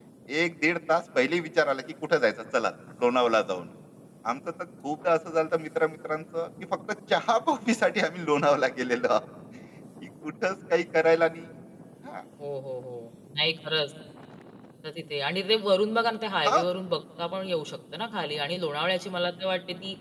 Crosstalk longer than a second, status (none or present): none